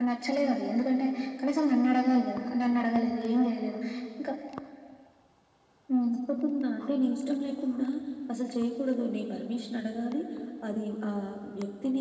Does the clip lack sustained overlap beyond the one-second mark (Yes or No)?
Yes